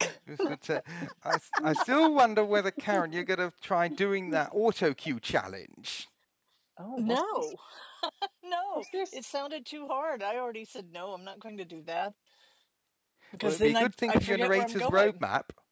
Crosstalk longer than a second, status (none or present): present